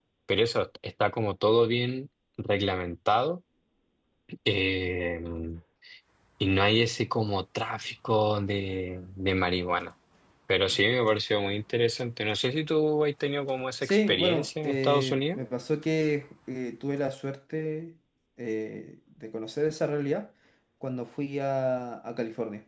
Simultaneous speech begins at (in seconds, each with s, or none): 13.8 s